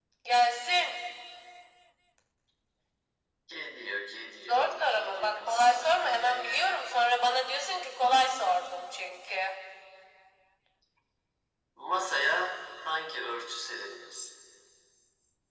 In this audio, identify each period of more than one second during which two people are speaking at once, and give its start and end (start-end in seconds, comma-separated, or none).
4.5-6.8